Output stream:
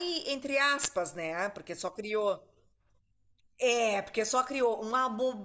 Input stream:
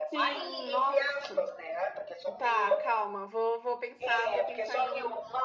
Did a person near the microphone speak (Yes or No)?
Yes